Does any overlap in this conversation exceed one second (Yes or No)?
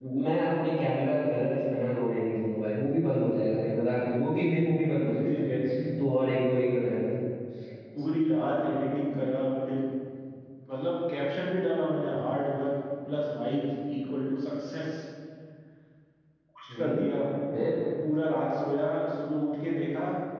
No